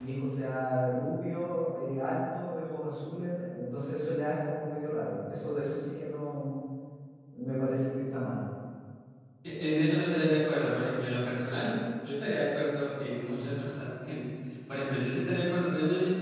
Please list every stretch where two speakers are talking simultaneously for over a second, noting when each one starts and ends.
none

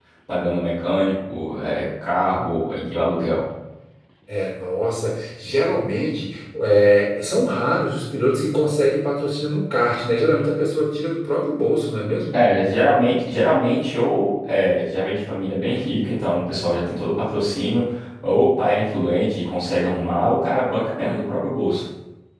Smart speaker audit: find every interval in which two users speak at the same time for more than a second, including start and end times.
none

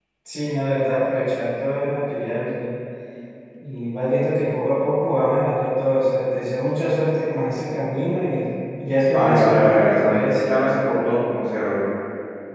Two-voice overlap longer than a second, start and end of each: 9.1-10.4

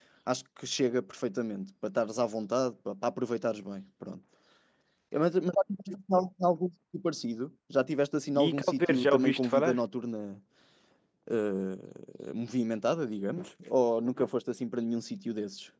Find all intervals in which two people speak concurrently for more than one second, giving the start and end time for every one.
8.4-9.8

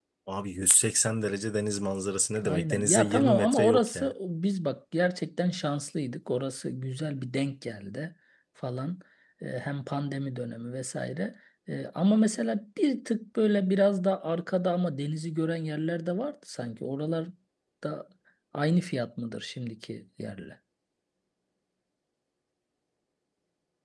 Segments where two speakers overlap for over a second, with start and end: 2.4-4.1

